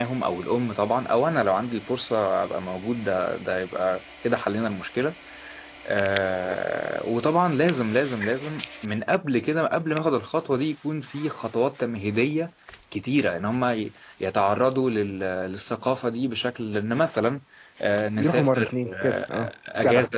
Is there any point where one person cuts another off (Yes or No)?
Yes